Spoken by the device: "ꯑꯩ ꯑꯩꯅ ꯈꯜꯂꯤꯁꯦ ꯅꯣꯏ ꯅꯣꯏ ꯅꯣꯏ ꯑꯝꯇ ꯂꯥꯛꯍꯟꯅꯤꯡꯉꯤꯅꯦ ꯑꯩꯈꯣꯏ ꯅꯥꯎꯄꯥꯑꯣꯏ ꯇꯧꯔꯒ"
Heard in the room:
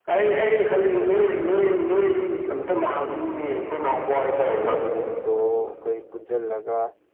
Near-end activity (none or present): present